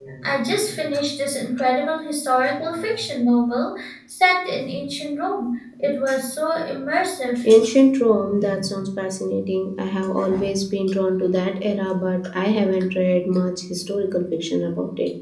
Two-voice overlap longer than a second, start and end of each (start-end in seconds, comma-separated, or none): none